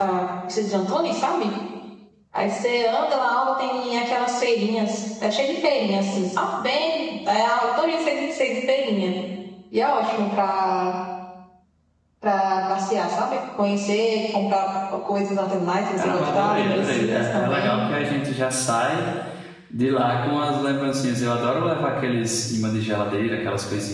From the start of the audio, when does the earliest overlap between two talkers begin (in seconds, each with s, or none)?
16.0 s